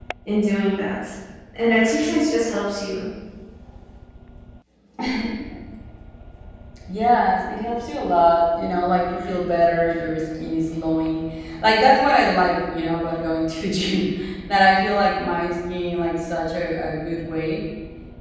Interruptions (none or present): none